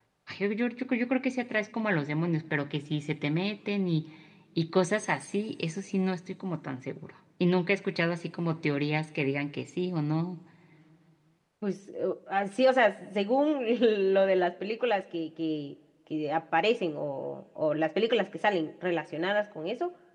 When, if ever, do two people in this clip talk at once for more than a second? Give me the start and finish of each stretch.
none

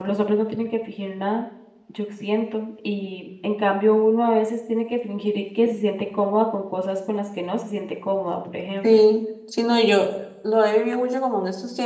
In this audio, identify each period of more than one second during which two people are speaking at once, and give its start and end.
none

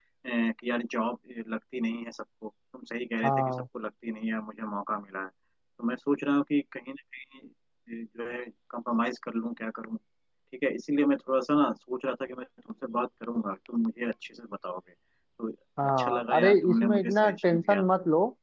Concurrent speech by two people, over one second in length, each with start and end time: 16.0-17.8

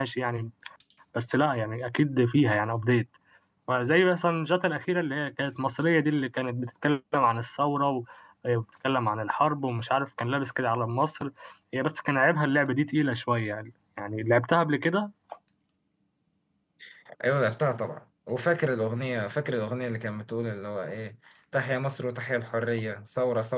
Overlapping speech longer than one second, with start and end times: none

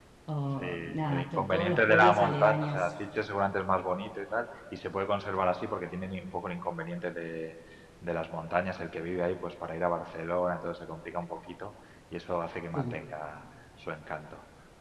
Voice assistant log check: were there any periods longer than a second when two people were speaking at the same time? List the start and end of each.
0.6-2.9

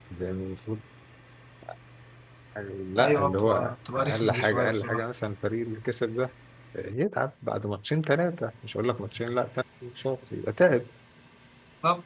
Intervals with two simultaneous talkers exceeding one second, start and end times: 3.0-5.1

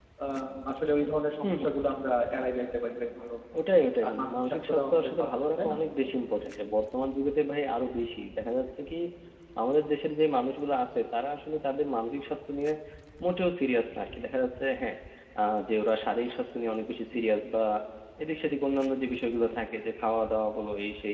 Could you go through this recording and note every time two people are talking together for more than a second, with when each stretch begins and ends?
4.0-5.8

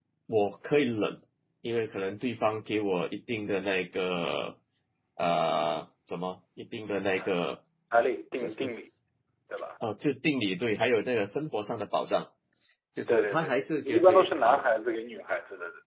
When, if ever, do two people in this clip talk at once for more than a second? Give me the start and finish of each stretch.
13.1-14.6

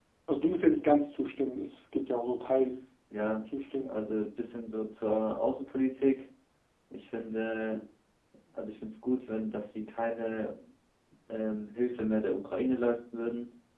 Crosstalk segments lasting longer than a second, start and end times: none

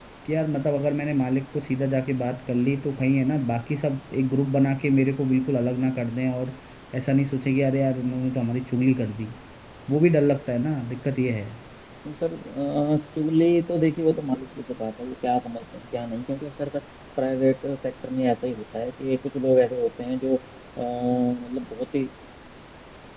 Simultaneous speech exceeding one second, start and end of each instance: none

